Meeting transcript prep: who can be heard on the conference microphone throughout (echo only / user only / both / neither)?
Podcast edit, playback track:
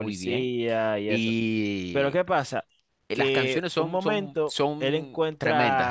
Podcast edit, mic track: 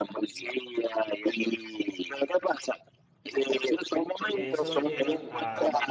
both